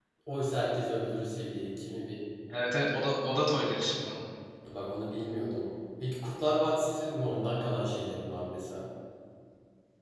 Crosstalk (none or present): none